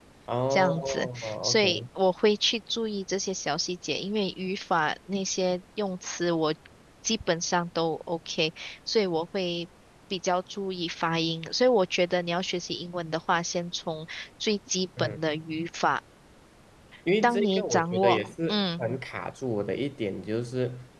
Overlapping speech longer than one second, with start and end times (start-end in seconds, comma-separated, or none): 0.5-1.8, 17.2-18.8